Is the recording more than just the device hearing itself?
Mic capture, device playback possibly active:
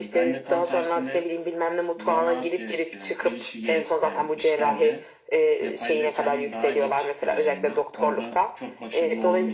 Yes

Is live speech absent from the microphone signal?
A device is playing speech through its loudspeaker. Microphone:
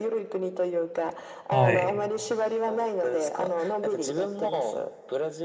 No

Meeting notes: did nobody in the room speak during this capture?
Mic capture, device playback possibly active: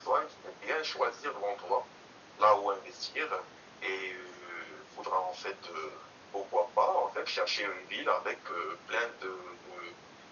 Yes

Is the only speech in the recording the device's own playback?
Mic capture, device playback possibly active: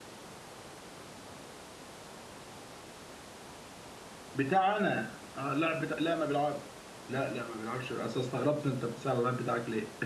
No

